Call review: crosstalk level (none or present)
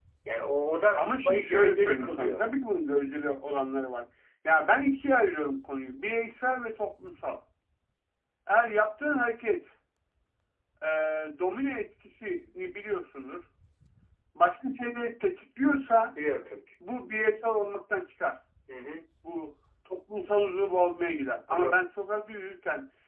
present